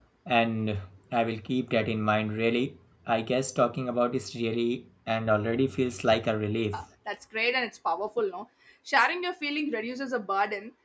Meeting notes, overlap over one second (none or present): none